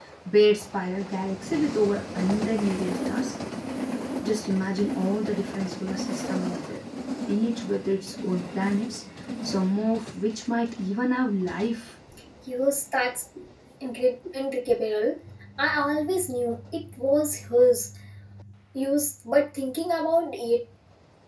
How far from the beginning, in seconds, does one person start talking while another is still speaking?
none

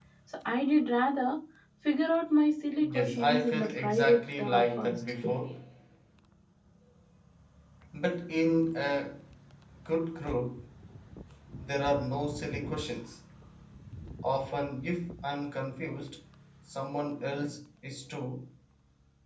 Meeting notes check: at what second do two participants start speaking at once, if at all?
2.8 s

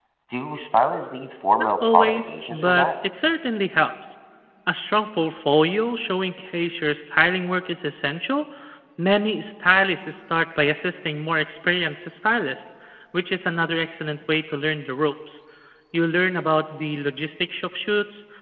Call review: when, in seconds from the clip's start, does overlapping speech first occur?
1.6 s

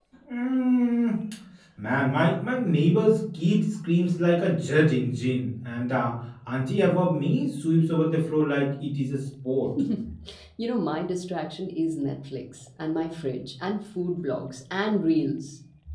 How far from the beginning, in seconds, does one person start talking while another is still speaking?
none

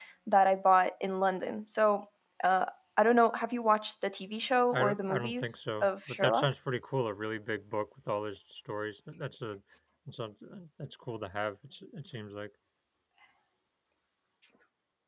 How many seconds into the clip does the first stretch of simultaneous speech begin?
4.7 s

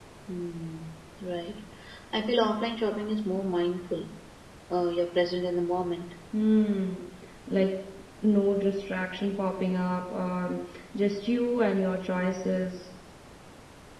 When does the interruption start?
none

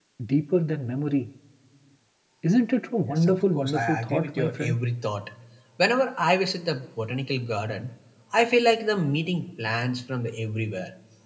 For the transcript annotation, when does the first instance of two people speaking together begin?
3.1 s

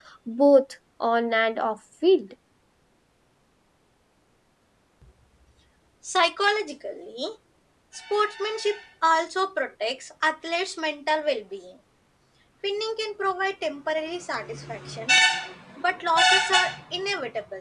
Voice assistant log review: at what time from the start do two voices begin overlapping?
none

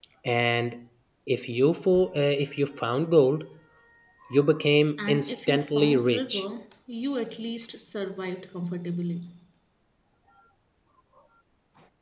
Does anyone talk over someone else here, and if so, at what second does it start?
5.0 s

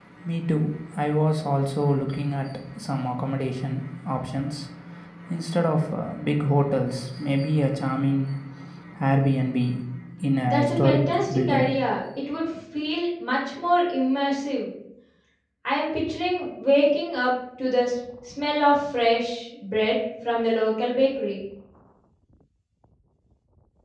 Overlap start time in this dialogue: 10.4 s

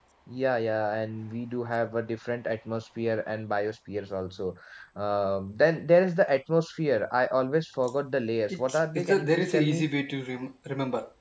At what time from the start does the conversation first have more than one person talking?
8.5 s

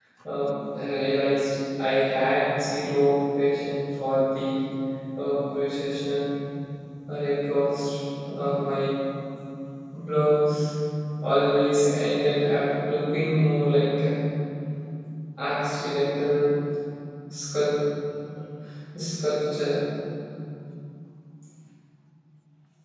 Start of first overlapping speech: none

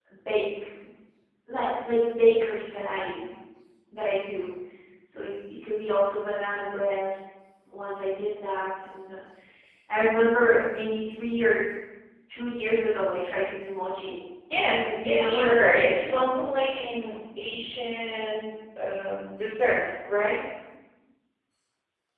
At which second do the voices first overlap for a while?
14.5 s

